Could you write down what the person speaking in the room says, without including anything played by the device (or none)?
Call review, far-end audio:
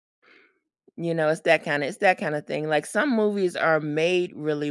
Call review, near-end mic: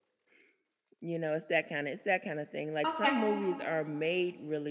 Okay.